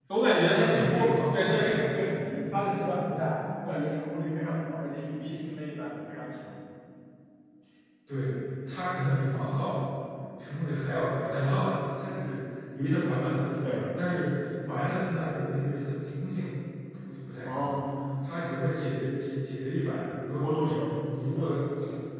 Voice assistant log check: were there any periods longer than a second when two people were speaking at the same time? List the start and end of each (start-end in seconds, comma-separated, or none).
0.6-1.9